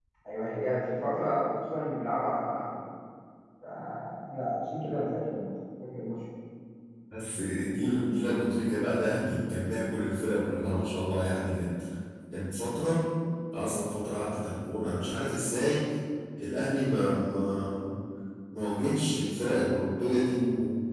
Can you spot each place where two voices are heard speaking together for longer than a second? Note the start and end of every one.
none

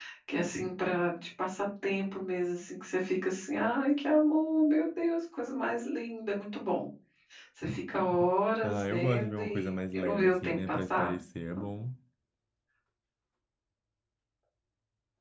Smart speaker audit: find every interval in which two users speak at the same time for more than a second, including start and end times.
8.6-11.2

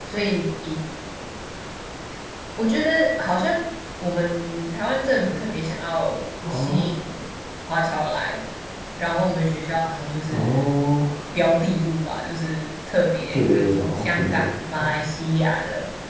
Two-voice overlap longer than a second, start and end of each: 13.3-14.9

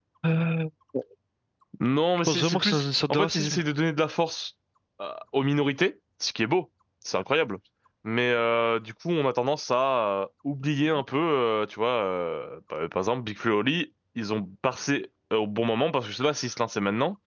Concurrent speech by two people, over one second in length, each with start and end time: 2.3-3.6

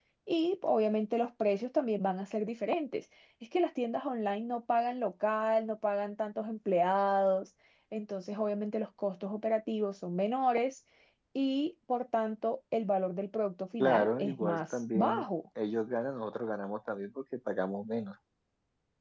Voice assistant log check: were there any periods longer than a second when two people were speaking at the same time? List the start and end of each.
13.8-15.2

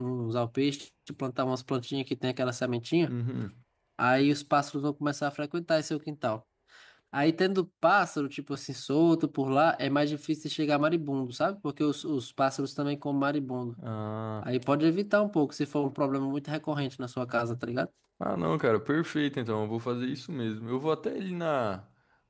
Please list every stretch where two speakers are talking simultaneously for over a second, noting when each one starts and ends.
none

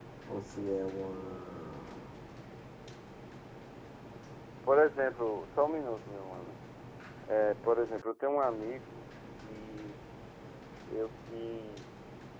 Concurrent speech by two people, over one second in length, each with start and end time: none

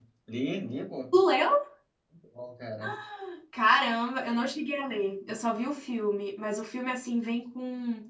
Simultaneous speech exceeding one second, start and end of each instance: none

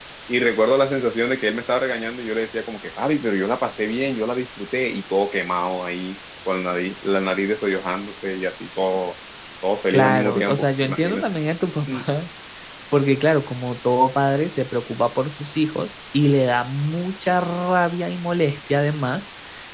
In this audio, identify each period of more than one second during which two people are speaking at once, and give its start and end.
9.9-11.2

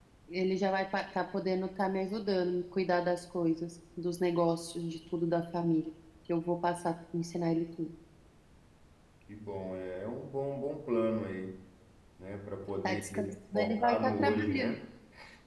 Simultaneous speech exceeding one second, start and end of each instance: 13.5-14.8

